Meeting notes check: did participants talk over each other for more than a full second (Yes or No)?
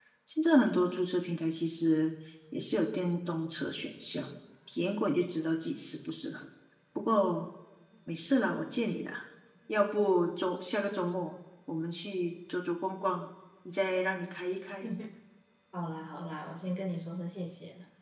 No